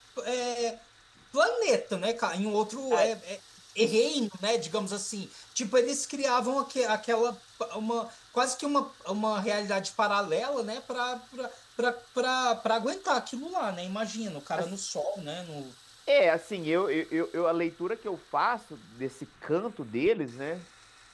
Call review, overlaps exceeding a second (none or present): none